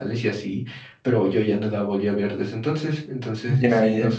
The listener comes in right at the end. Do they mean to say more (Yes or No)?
No